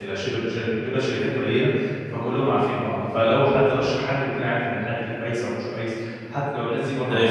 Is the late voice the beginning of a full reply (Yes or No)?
No